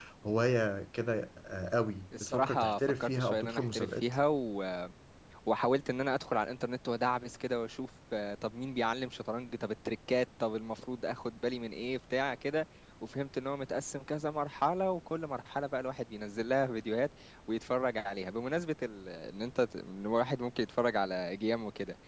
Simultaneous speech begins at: 2.1 s

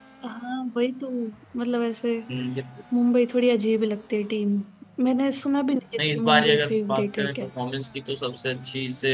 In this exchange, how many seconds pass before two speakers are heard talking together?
6.0 s

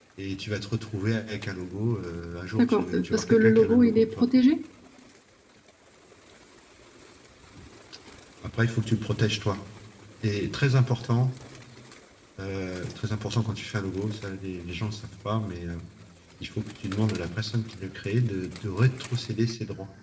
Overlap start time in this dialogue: 2.6 s

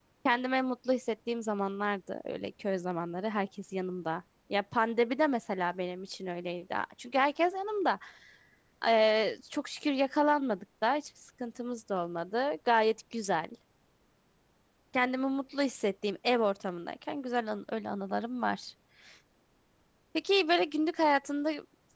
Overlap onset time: none

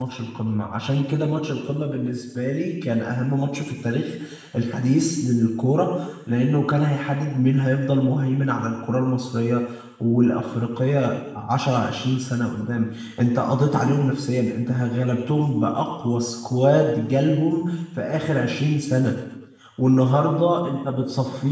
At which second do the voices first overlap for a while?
none

